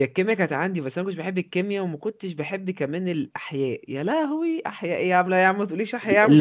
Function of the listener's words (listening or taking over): taking over